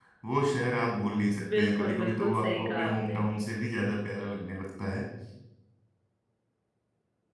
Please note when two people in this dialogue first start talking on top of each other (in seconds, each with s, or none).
1.4 s